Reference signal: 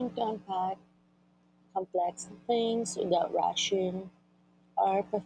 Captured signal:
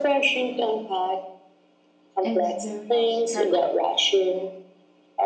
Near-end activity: present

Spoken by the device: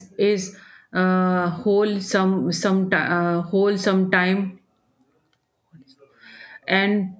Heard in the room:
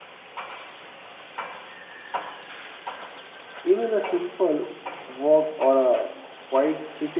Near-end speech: present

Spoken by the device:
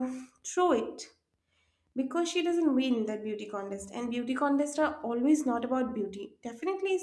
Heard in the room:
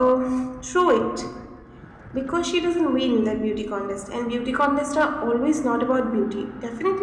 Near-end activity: none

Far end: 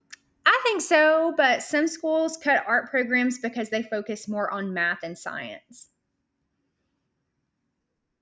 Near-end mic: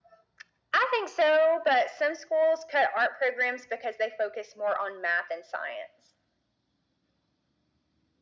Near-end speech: none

